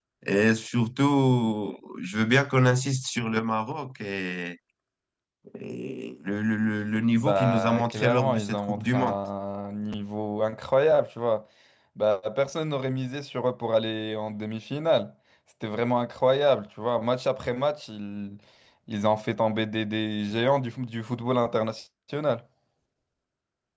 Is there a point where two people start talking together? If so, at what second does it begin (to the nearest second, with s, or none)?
7 s